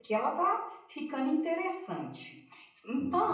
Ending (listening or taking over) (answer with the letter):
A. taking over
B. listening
B